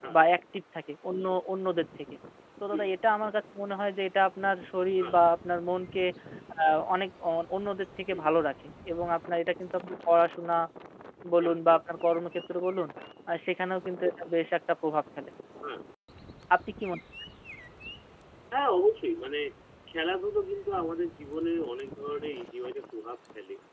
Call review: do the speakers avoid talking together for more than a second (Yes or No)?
Yes